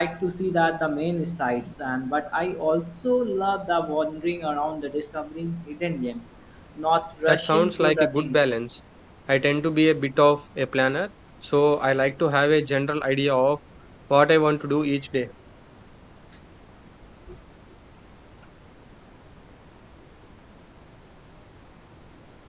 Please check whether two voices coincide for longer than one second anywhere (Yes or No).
Yes